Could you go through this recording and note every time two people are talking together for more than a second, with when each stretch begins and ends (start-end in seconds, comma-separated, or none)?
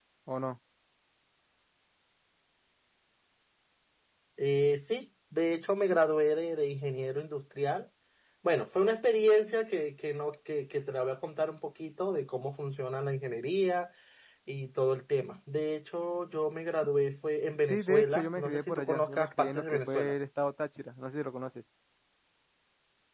17.7-20.1